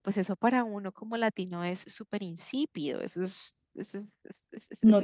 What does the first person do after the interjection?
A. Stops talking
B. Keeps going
A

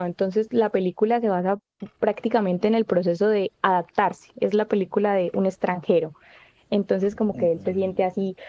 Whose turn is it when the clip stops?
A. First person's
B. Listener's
A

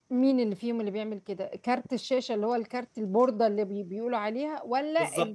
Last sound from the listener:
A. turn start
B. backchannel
A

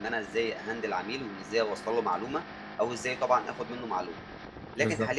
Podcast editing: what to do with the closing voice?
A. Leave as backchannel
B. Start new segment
A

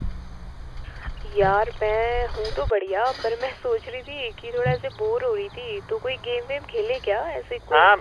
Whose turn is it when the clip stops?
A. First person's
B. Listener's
B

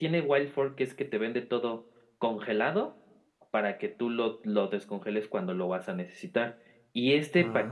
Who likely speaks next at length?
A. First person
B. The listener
A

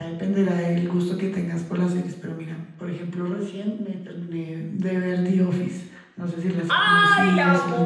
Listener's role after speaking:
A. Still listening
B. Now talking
B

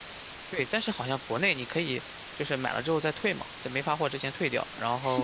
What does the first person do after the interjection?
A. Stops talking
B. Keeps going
A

